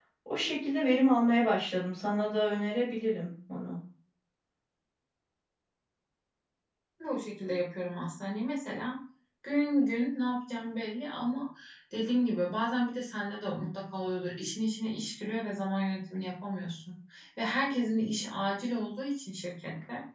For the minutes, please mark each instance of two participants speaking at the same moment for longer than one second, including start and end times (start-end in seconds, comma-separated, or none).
none